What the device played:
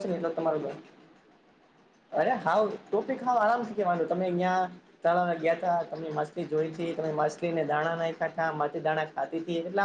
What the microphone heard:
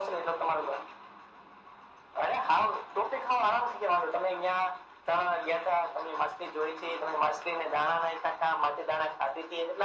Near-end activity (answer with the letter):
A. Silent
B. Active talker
A